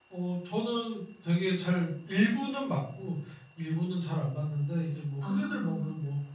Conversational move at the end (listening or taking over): listening